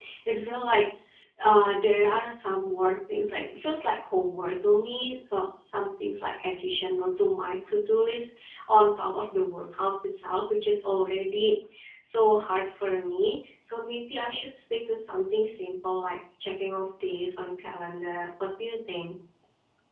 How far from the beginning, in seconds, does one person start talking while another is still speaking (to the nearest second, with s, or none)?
none